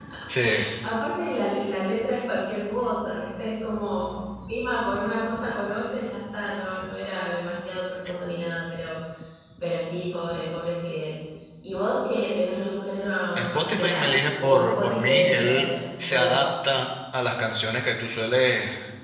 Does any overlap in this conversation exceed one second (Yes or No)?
Yes